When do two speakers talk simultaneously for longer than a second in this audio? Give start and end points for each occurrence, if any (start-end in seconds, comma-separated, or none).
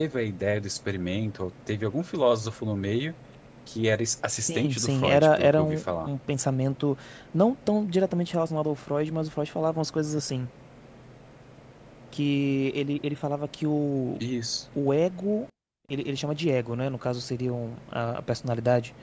4.4-6.1